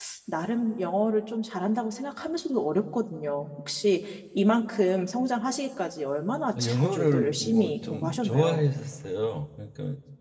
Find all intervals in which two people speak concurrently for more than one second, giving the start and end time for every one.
6.5-8.7

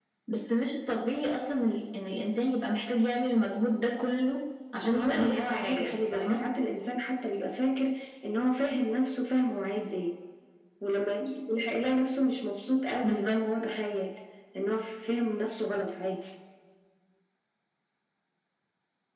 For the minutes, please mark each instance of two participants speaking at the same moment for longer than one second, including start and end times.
4.8-6.4

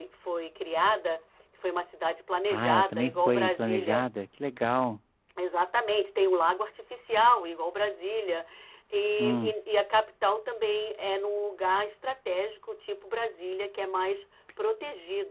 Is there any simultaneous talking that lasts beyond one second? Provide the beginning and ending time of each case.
2.5-4.0

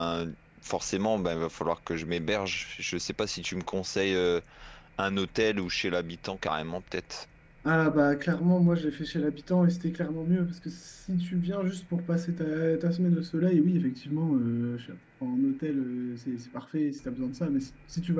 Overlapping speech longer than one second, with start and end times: none

